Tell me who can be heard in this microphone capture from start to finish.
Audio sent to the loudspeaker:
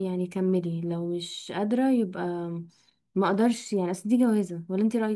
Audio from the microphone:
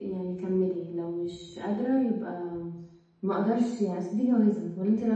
echo only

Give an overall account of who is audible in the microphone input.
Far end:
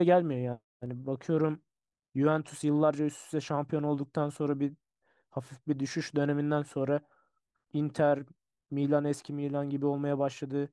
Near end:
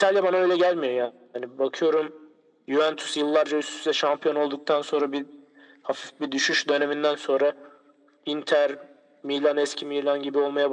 echo only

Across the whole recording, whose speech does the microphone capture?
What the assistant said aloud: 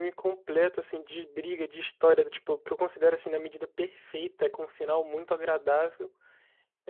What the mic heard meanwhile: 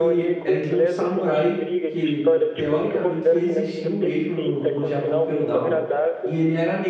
both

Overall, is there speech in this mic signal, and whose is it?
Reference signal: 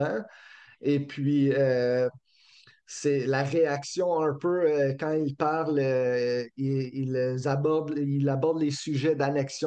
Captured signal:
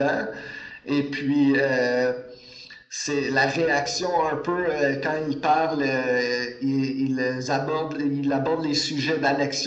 echo only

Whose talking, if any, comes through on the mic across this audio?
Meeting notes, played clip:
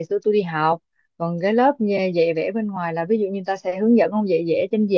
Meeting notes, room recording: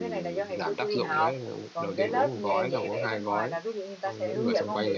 both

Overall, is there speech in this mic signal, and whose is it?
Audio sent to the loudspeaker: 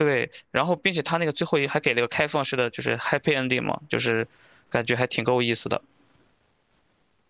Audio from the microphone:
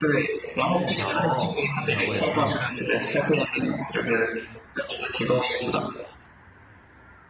both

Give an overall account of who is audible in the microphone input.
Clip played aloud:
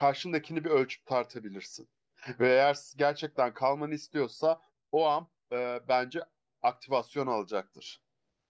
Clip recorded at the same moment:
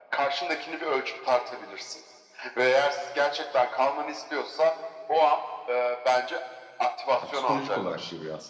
both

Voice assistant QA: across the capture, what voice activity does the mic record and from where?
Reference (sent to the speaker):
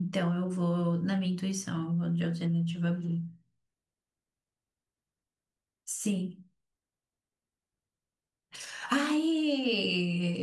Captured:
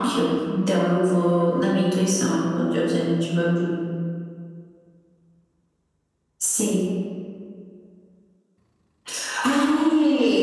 echo only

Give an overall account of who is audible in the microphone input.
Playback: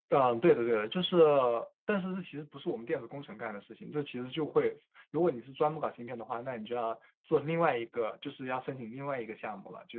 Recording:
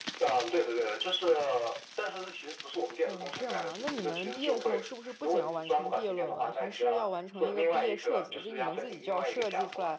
both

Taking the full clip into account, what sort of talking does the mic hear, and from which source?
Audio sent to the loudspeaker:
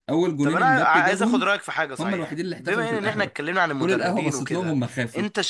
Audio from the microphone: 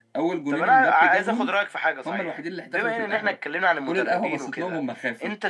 echo only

